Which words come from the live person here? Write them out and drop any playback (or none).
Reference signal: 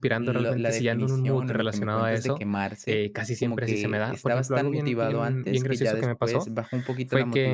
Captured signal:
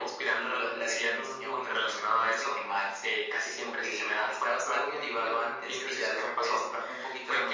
none